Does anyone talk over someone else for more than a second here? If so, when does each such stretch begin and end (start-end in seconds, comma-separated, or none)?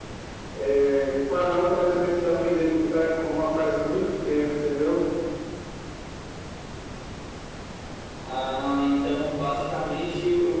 none